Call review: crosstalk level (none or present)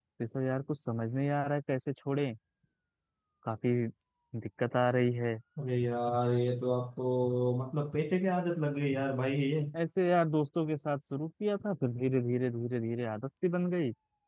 none